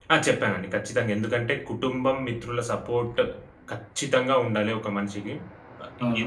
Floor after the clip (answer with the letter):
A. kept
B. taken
B